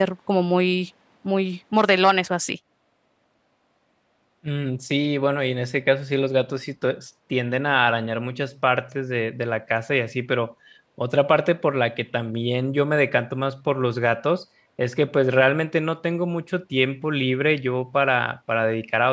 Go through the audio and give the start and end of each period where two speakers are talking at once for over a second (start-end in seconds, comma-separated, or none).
none